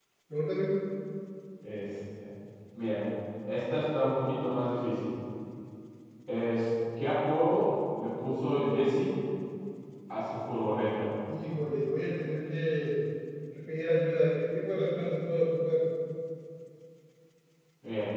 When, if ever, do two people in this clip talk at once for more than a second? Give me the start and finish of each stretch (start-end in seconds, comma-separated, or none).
none